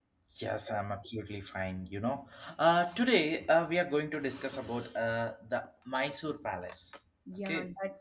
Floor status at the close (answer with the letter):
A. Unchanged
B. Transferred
B